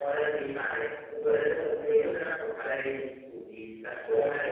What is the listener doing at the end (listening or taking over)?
listening